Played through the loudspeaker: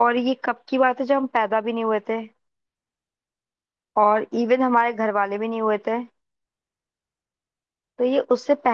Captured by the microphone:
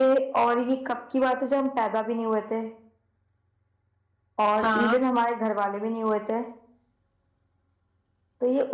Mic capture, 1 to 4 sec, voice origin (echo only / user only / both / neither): echo only